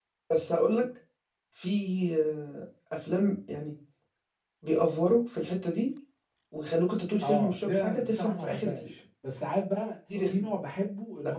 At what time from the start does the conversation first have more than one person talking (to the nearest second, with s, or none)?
7 s